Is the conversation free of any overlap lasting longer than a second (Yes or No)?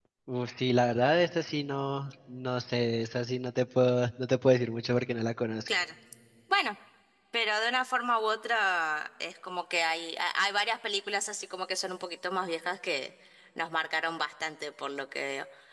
Yes